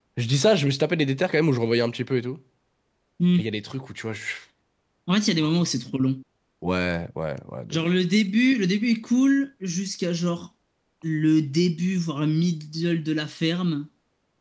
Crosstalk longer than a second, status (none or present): none